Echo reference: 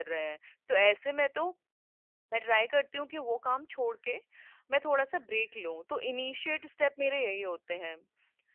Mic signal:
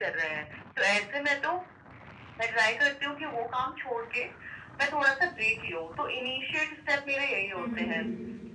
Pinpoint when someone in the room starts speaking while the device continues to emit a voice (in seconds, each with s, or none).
7.6 s